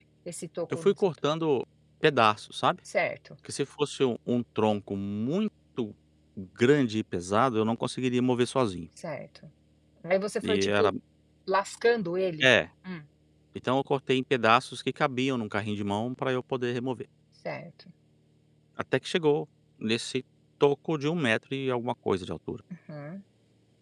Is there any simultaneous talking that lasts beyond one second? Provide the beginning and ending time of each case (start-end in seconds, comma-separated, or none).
none